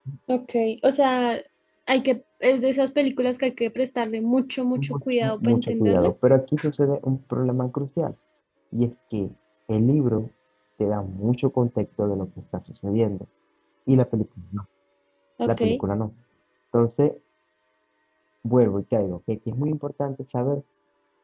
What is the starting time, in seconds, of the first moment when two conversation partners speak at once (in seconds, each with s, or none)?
4.8 s